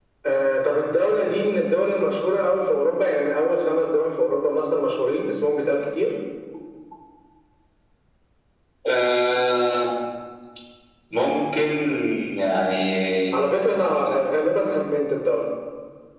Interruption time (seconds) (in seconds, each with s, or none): none